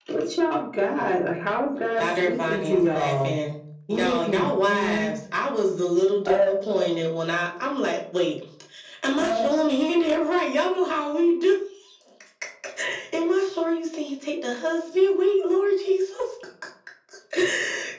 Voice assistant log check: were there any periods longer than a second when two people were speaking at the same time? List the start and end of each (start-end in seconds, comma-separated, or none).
2.0-3.4, 3.9-5.1